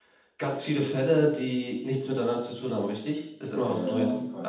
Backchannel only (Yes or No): No